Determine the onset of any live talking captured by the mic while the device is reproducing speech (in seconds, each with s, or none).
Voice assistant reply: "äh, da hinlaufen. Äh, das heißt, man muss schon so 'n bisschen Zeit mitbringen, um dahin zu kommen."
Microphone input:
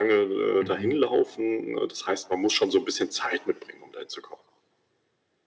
0.6 s